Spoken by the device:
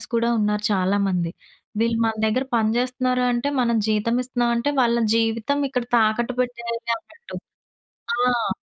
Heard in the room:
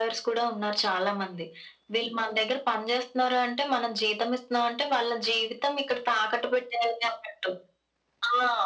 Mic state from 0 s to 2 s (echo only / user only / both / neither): echo only